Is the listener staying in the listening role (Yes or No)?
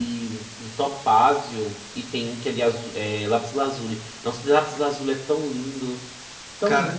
No